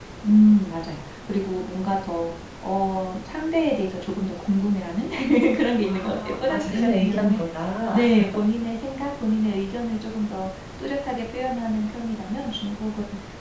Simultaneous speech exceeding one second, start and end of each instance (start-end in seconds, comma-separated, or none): 5.8-7.4